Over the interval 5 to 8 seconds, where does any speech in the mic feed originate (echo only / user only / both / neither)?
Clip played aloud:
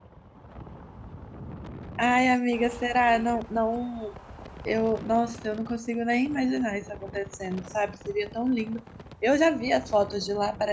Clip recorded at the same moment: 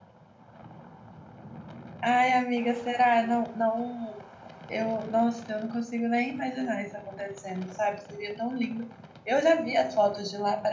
echo only